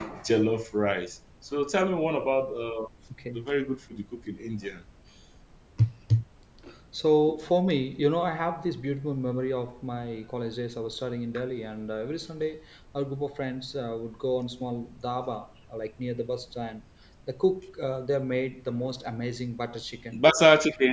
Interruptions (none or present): none